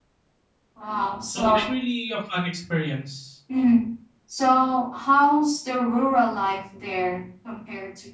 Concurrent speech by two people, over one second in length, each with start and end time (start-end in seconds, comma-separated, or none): none